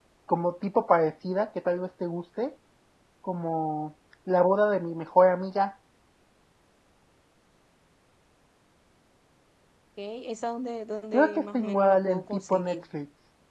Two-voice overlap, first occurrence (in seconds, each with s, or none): 11.1 s